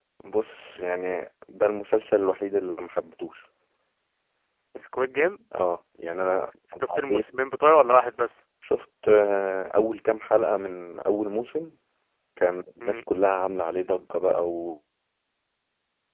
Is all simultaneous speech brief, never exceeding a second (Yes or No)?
Yes